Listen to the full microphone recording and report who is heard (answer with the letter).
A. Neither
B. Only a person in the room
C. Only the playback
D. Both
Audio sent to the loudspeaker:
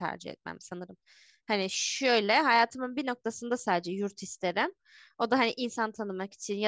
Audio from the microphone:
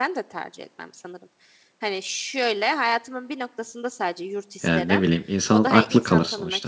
D